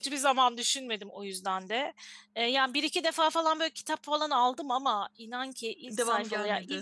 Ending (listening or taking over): listening